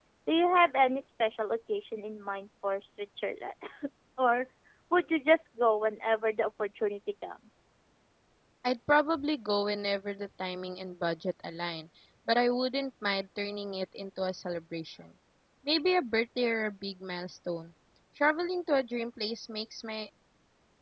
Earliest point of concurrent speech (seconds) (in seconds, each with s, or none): none